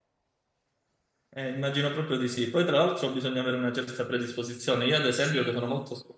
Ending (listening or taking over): listening